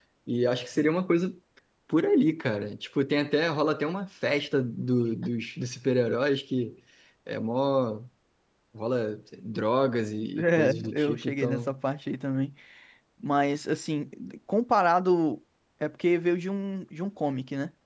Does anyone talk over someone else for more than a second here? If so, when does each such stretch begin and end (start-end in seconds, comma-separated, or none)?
10.4-11.7